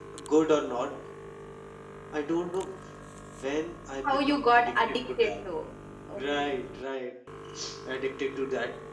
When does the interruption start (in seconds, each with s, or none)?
4.0 s